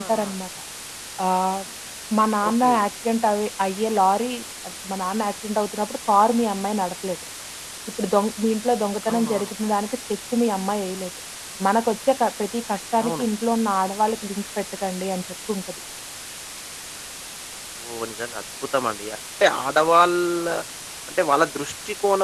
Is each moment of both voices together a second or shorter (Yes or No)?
Yes